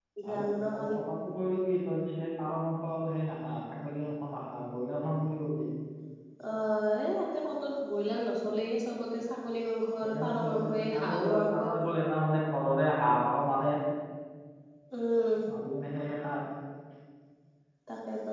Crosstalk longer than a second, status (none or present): present